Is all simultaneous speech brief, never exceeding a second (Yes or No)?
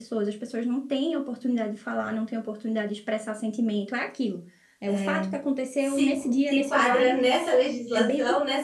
No